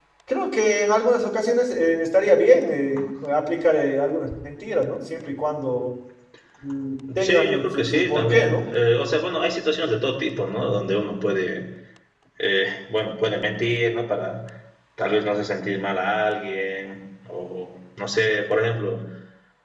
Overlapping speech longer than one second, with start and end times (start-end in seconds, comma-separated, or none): 7.2-8.6